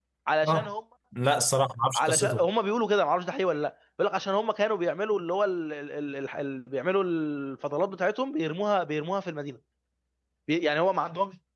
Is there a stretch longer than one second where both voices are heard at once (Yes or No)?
No